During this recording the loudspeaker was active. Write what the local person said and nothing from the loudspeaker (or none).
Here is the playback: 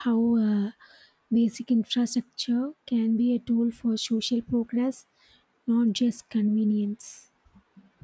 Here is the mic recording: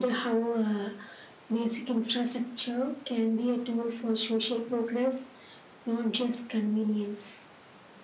none